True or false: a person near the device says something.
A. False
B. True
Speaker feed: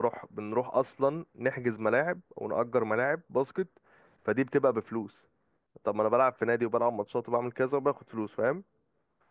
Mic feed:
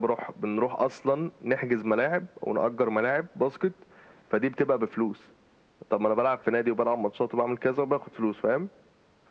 A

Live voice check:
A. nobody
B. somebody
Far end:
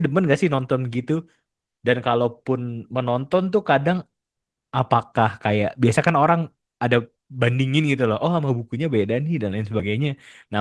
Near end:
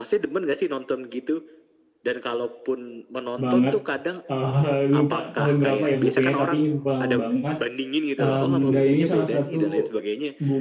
B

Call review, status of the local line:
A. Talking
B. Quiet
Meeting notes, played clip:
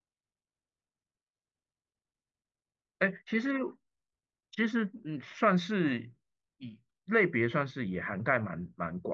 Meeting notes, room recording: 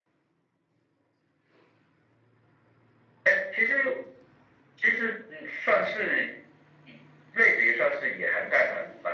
B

